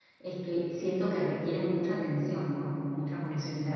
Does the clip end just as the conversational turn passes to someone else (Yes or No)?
No